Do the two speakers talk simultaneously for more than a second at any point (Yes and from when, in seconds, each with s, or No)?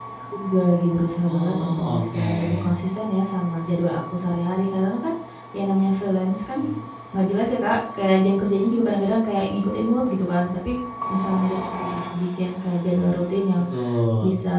Yes, from 1.3 s